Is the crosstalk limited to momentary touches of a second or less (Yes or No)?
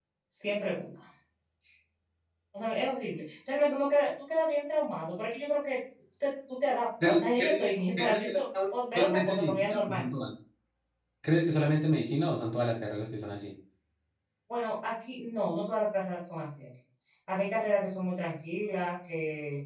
No